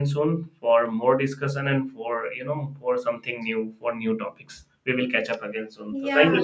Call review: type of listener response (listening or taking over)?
taking over